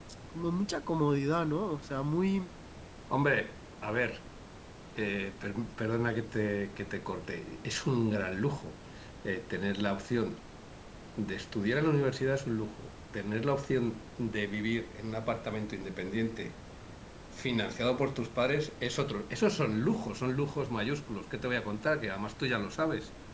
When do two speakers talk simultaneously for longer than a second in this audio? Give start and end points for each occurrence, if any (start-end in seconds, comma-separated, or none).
none